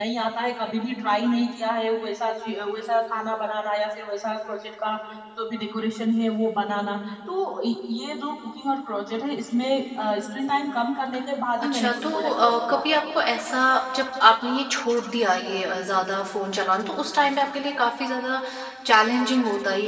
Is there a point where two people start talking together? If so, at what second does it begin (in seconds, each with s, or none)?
11.6 s